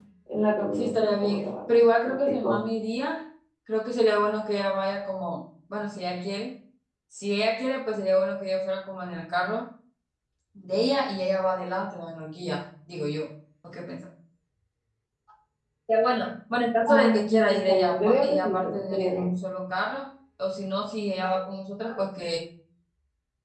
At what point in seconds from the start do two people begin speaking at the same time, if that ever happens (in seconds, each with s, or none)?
0.8 s